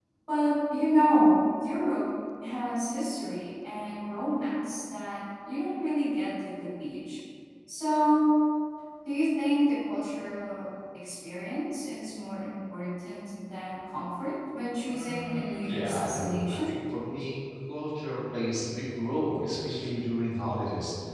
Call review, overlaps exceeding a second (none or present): present